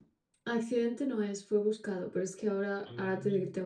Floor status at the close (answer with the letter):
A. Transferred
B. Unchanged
B